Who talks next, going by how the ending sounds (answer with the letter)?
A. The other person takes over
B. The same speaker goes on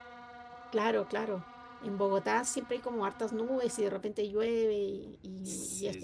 A